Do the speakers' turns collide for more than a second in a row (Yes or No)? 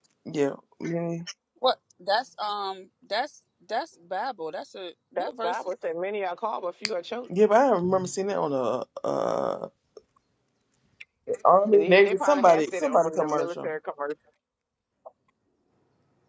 Yes